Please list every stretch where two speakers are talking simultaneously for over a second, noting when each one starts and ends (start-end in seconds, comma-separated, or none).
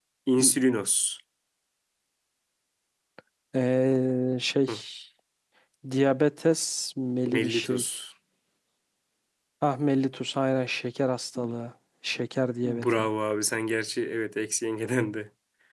none